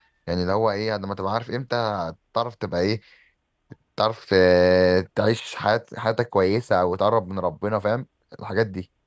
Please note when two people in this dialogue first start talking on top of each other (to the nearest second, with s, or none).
none